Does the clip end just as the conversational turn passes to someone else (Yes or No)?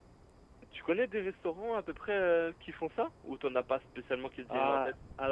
Yes